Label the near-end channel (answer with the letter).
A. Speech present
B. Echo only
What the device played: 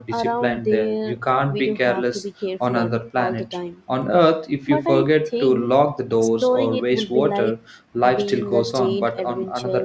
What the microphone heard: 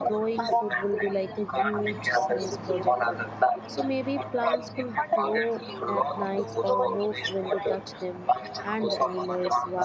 A